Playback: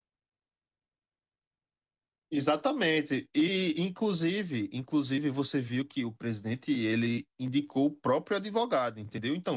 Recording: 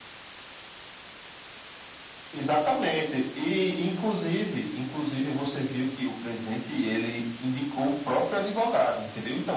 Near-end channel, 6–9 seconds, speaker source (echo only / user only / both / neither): echo only